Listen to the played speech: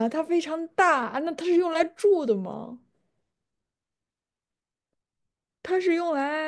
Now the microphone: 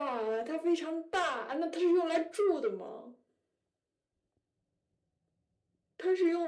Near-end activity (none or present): none